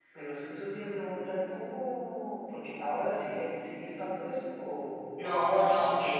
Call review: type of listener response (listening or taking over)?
taking over